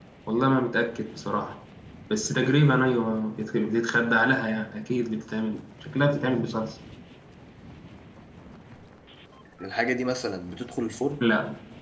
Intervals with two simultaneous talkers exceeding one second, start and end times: none

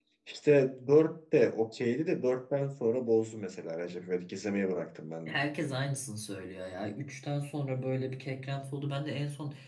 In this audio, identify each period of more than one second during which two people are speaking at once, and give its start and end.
none

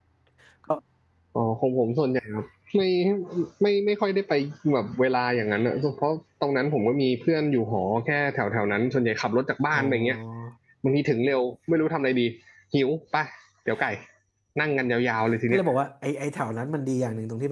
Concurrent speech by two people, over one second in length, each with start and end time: none

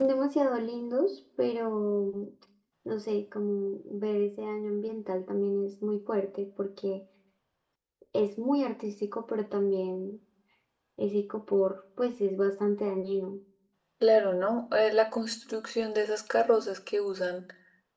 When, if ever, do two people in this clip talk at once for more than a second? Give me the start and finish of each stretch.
none

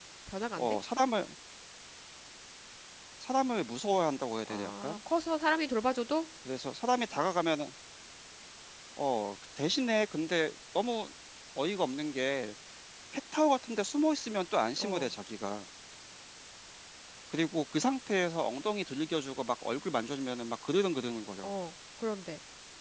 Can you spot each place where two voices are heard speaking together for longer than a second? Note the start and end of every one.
none

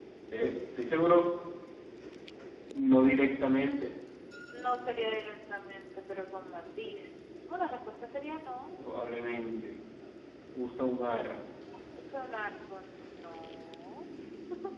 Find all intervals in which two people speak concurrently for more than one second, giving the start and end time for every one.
none

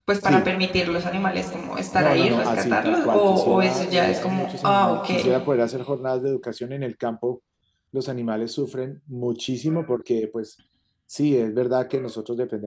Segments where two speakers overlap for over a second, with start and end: 2.0-5.1

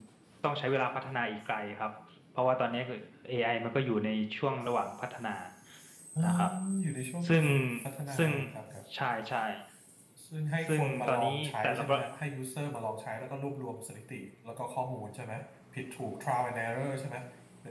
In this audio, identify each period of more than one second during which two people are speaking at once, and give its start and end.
10.7-12.0

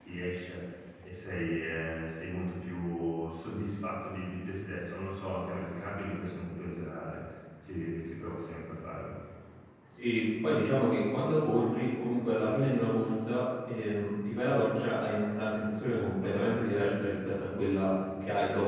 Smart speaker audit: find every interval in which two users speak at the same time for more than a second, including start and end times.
none

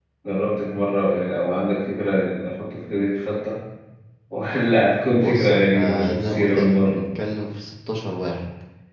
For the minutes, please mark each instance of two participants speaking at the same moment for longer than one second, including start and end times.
5.1-7.0

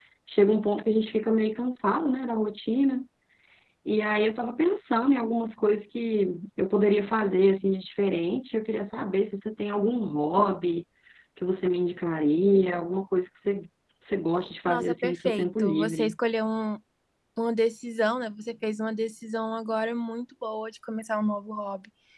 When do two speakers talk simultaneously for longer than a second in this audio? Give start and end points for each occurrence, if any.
14.7-16.1

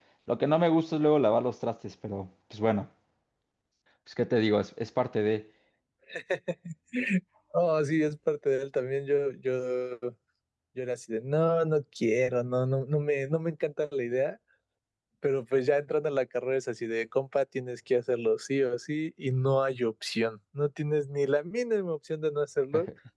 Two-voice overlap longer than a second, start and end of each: none

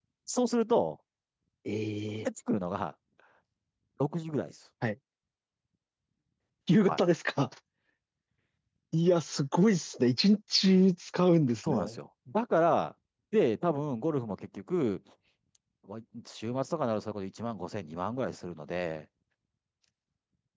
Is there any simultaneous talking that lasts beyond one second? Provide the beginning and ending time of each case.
none

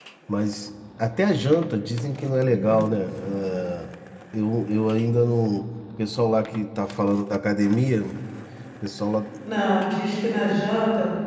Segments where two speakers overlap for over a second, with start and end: none

